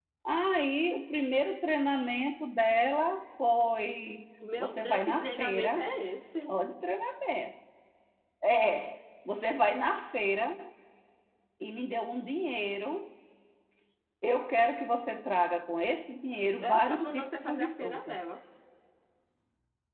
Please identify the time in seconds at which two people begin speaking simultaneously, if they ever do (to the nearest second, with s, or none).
5 s